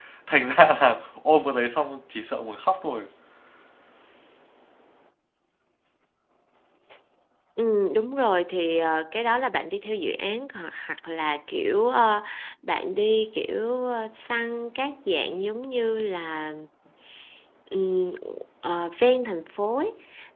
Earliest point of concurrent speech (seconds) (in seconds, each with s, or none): none